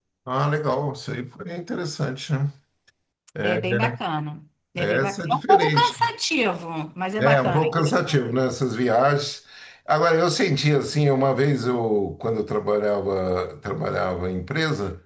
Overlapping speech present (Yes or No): Yes